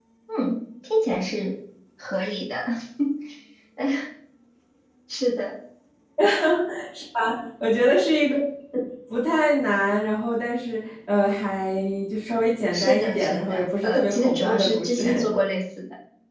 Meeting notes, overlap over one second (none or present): present